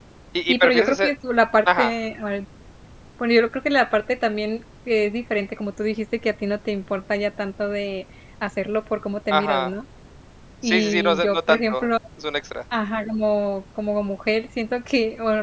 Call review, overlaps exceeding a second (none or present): present